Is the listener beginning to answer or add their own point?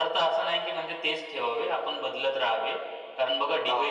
No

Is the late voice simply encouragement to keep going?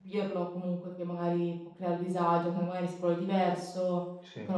Yes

